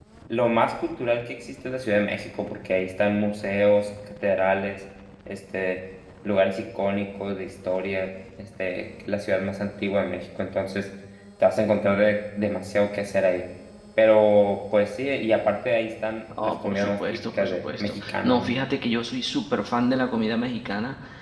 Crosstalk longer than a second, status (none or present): present